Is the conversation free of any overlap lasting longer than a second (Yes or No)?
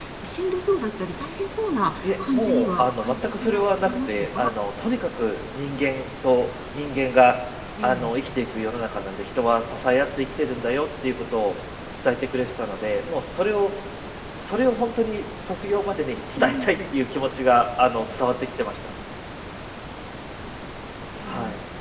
No